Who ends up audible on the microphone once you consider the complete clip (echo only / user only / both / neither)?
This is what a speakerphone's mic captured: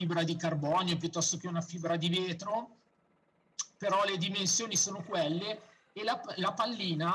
echo only